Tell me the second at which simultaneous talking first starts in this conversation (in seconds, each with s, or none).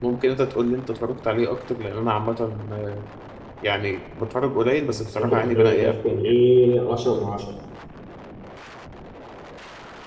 4.8 s